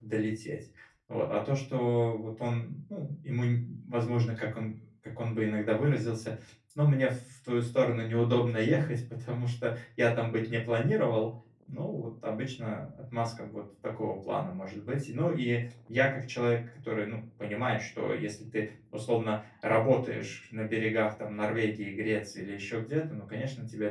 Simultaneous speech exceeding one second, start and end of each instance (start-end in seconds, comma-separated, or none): none